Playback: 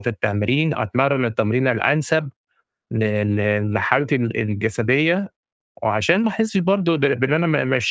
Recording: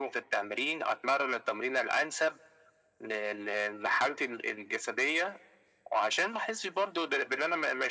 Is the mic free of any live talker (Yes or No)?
Yes